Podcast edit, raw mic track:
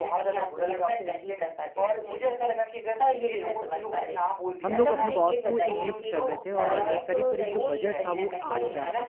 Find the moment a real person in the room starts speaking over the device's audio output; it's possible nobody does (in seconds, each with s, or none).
4.7 s